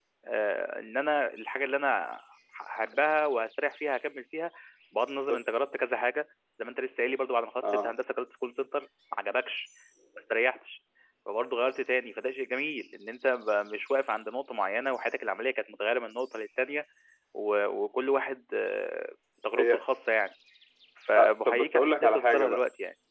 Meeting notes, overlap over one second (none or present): present